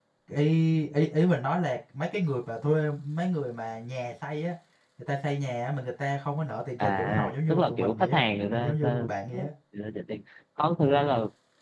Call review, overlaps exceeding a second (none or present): present